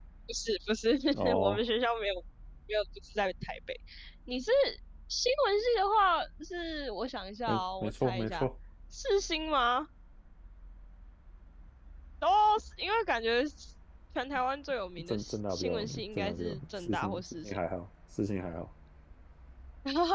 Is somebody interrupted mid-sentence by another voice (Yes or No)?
Yes